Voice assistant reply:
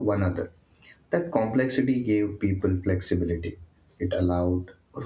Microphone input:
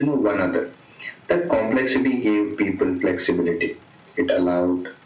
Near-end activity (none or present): none